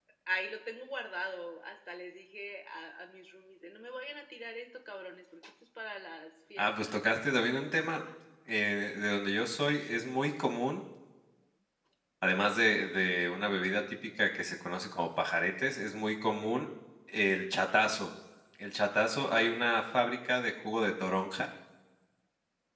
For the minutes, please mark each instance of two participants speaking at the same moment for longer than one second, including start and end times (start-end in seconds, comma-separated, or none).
none